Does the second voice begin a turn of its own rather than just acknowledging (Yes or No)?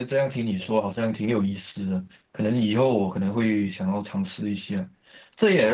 No